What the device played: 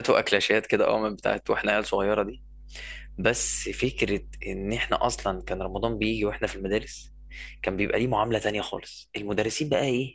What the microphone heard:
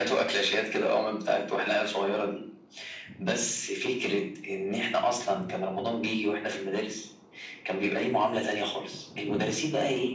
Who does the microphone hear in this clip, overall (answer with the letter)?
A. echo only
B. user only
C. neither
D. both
A